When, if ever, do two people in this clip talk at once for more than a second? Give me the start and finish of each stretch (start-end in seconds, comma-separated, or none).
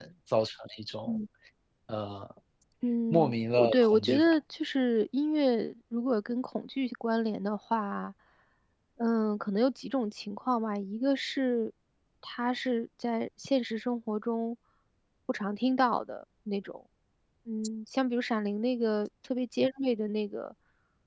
3.1-4.3